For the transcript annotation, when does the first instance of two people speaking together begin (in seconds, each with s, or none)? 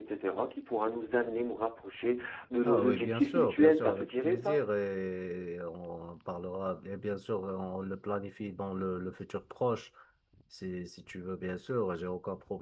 2.6 s